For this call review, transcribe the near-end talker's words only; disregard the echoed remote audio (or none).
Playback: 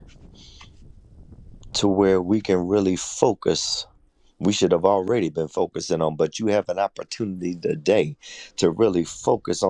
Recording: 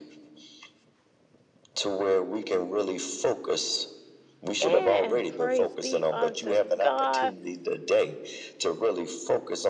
And praise be unto God.